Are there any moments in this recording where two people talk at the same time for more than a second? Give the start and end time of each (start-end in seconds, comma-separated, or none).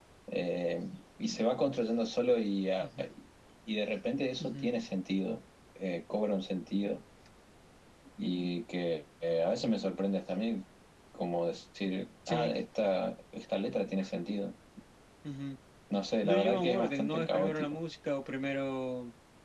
16.2-17.8